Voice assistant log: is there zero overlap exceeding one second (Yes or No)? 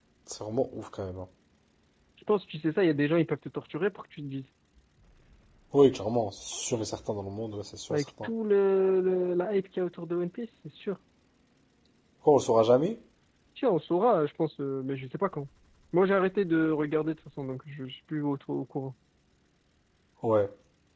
Yes